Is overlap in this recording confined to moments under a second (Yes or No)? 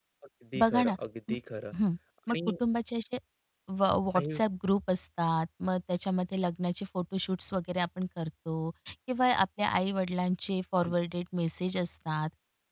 Yes